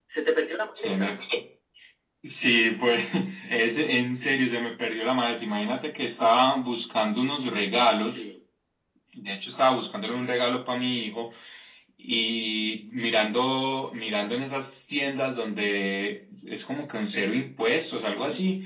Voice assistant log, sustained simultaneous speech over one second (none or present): none